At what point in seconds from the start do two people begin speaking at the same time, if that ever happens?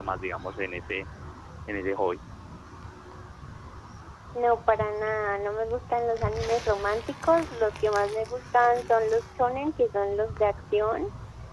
none

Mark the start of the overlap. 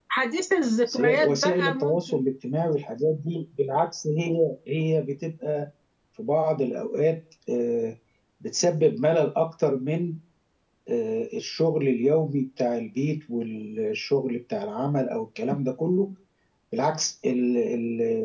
1 s

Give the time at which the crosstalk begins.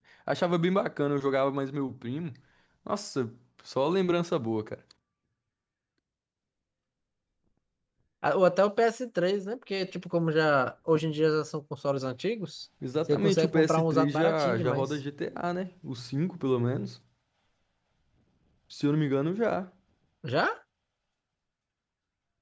13 s

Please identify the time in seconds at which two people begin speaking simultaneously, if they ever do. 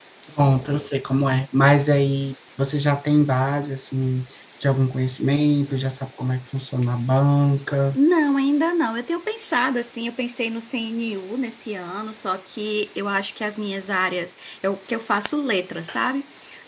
none

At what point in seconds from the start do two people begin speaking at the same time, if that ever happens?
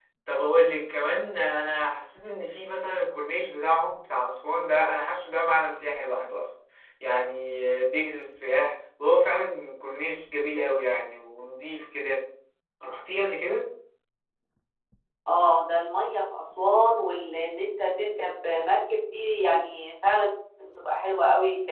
none

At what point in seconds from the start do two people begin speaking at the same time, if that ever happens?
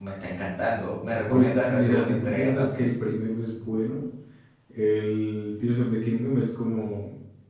1 s

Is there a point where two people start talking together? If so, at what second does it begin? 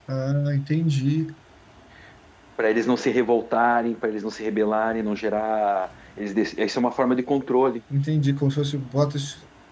none

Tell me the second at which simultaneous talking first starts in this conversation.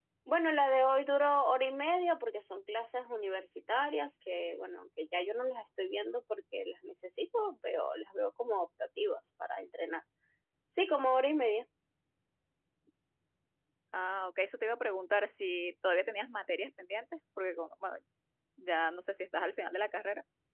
none

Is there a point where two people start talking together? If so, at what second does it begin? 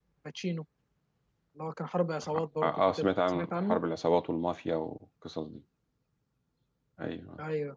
2 s

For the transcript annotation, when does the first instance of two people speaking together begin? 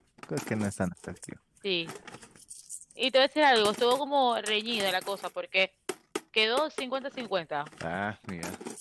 none

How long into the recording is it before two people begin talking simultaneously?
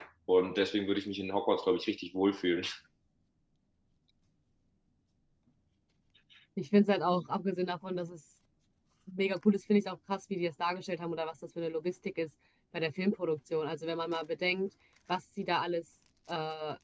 none

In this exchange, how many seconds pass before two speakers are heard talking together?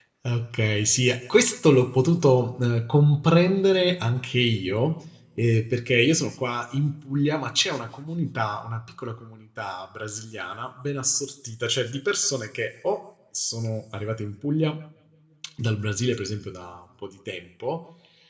none

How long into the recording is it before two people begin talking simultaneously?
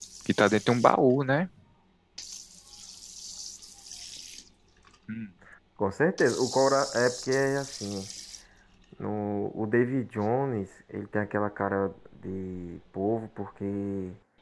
none

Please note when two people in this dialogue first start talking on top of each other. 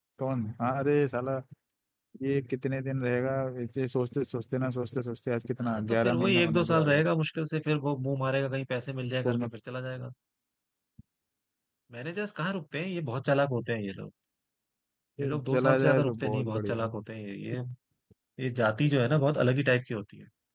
6 s

